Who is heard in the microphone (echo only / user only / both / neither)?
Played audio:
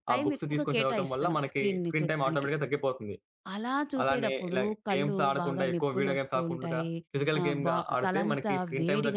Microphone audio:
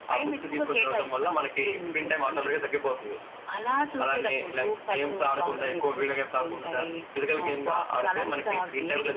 echo only